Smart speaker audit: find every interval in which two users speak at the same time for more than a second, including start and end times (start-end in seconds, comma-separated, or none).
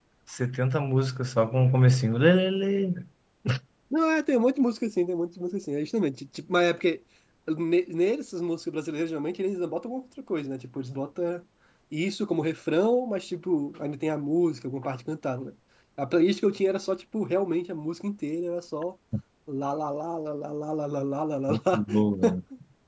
none